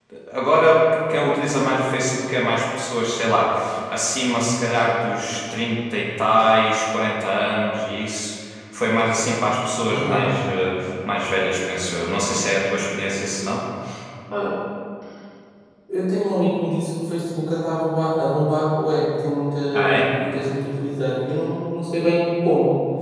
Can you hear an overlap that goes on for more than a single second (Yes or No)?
No